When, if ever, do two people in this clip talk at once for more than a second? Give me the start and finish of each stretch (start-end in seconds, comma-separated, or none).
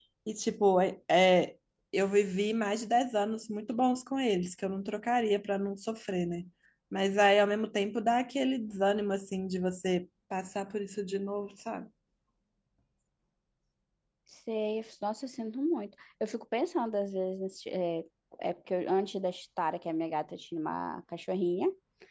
none